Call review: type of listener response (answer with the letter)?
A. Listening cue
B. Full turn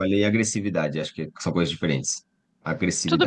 B